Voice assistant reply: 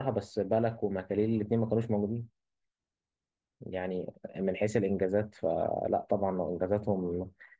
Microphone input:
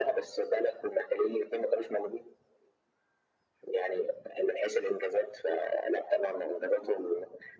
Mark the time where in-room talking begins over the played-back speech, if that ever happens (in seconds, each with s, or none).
none